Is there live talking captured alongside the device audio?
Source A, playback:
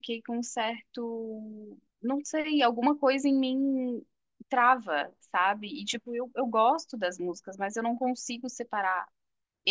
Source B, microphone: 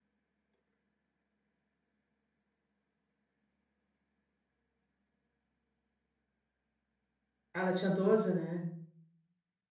Yes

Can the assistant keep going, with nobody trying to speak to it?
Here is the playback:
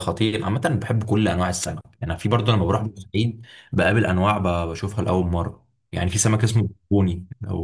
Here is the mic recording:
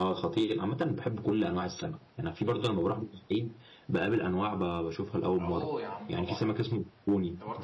No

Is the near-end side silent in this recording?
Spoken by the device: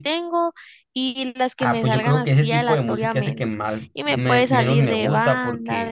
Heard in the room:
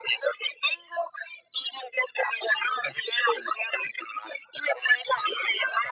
Yes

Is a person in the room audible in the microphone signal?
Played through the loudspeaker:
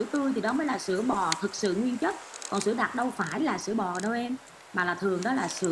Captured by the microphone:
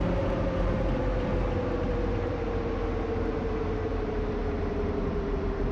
No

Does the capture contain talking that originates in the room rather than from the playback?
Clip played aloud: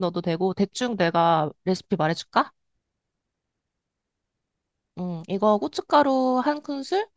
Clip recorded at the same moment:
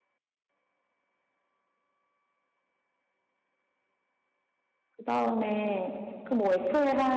Yes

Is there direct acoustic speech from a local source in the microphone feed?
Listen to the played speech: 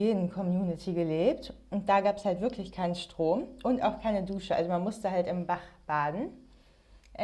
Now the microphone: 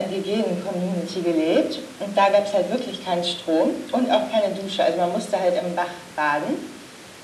No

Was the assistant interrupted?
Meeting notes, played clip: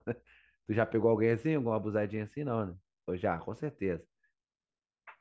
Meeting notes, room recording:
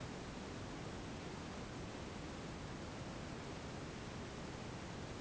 No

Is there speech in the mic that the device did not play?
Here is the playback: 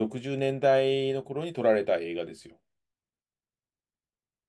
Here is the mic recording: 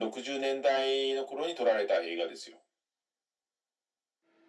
No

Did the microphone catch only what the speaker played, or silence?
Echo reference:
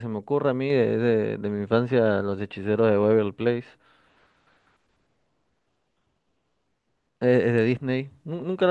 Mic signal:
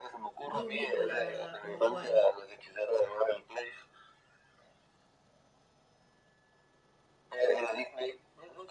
No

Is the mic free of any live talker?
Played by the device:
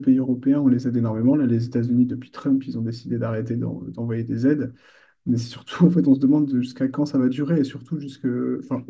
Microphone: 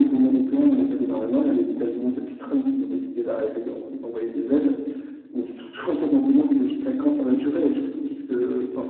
Yes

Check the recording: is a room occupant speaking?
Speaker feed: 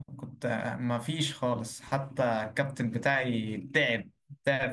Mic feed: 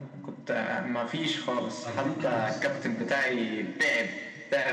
Yes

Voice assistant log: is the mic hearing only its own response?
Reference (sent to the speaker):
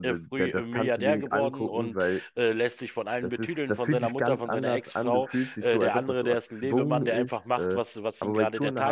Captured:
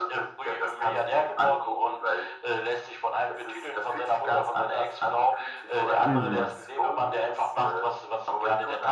No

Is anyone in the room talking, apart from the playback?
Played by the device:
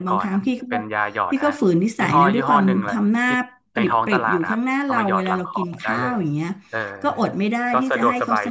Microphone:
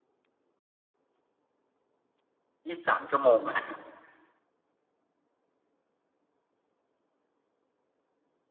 Yes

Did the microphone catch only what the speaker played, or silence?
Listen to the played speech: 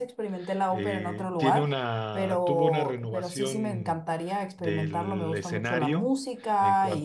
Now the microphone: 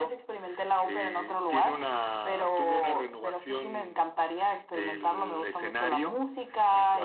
Yes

